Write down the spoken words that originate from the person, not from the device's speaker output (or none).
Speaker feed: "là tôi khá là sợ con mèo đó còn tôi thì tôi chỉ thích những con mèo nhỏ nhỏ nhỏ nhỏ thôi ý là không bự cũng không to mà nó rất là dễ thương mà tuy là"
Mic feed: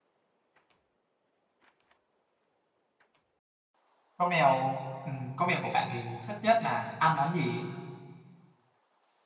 con mèo ừ, con mèo của bạn thì thích nhất là ăn món gì